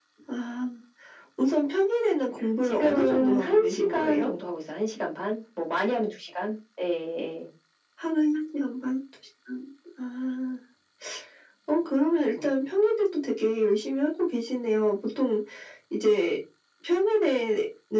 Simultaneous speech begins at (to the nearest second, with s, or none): 3 s